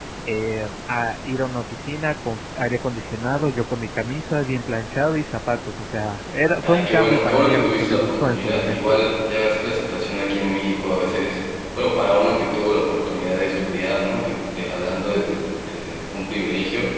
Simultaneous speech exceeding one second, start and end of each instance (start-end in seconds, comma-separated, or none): 6.6-9.0